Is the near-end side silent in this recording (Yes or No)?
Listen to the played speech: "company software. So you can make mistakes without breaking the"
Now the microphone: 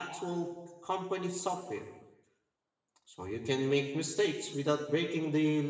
Yes